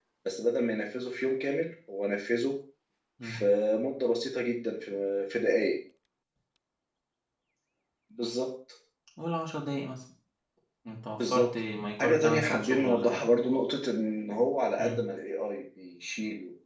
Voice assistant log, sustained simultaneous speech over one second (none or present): present